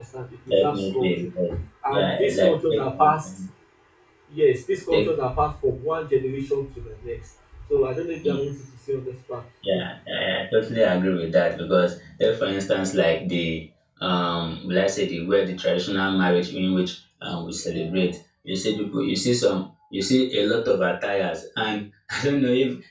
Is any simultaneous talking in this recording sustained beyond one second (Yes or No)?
Yes